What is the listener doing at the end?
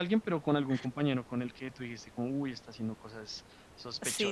taking over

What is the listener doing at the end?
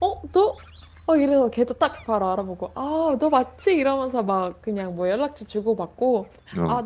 listening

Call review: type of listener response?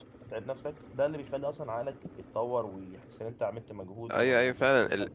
taking over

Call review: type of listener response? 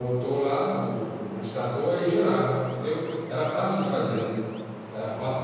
listening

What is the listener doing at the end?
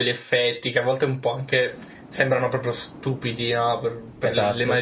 listening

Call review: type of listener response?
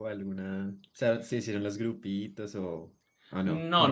taking over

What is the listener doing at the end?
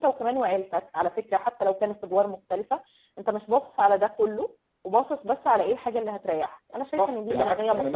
taking over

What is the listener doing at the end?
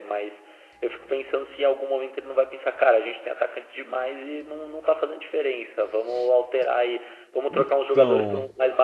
listening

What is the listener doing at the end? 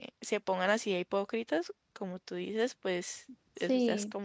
taking over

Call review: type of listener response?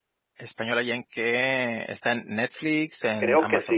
taking over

